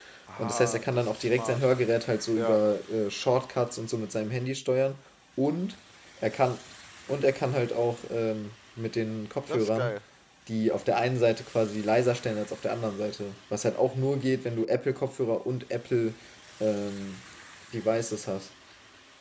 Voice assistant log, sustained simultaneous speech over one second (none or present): present